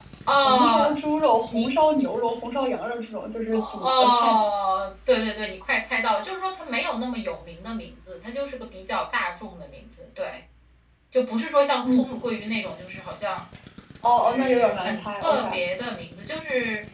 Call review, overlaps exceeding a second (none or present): present